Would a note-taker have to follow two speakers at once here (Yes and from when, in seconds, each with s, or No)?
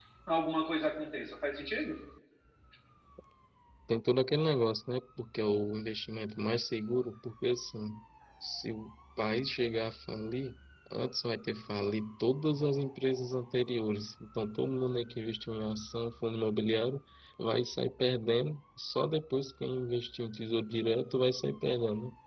No